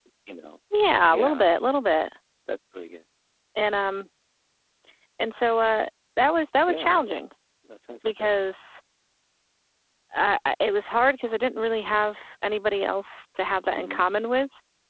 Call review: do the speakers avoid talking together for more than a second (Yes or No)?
Yes